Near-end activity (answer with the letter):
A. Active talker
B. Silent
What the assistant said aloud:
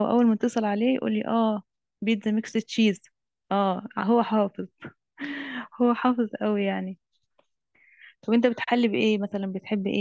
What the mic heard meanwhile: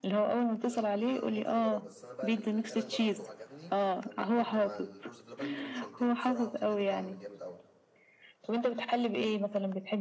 A